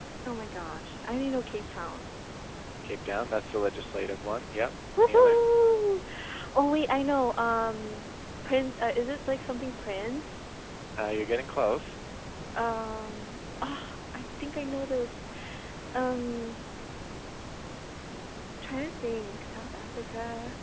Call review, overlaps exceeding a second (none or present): none